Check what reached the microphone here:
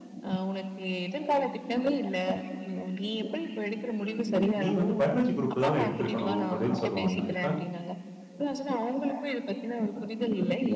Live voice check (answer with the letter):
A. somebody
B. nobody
A